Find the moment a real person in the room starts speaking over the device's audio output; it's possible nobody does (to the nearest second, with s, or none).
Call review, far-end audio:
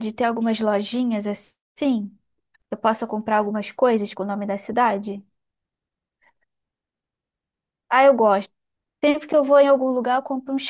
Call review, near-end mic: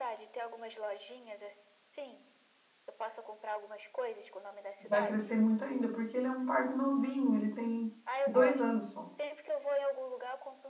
5 s